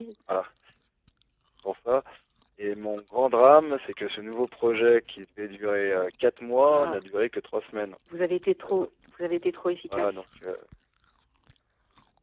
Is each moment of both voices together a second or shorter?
Yes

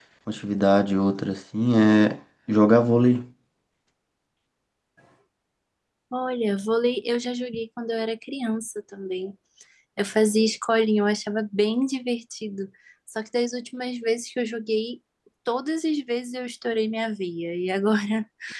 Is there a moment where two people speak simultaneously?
No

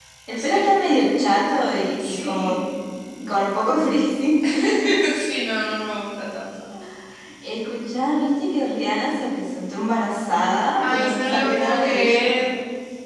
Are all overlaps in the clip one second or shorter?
No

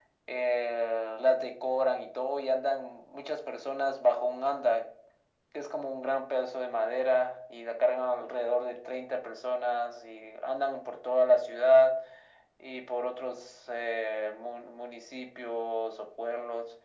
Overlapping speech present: No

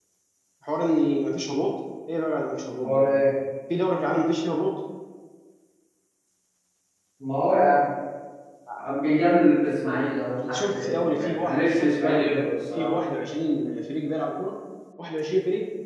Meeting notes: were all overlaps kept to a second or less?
No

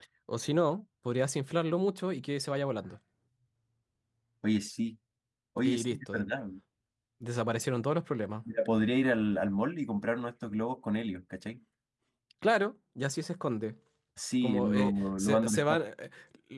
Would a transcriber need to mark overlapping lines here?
Yes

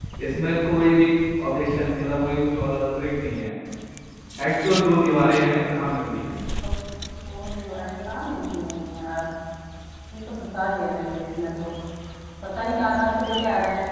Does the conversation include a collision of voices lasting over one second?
No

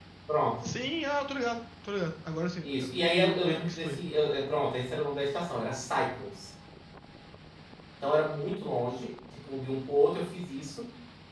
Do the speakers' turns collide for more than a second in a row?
Yes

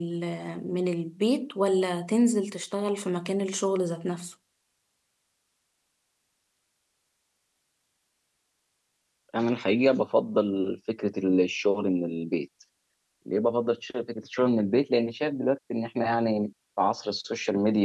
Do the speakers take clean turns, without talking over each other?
Yes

